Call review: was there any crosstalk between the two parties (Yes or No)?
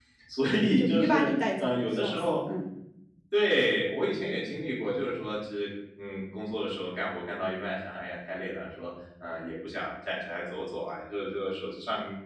Yes